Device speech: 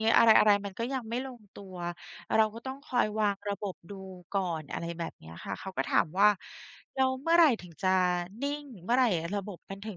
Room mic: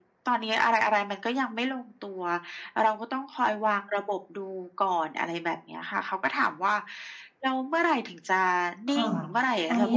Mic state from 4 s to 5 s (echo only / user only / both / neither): echo only